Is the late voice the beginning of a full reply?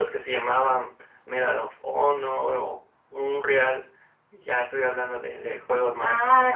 Yes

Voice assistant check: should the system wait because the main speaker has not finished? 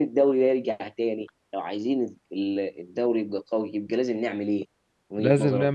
No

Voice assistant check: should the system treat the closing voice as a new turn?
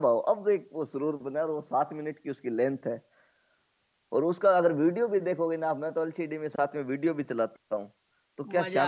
Yes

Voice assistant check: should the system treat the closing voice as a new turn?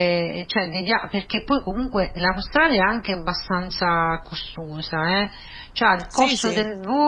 No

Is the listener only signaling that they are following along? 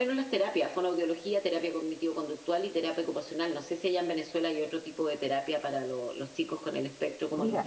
No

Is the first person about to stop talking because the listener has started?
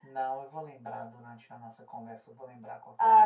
Yes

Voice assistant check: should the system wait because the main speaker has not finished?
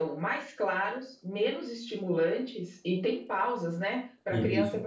Yes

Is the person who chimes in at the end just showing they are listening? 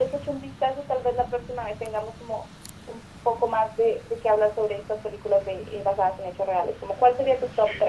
No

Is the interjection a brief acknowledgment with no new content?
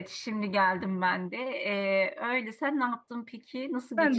No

